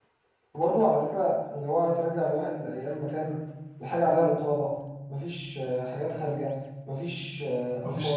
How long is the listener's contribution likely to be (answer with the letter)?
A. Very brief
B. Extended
A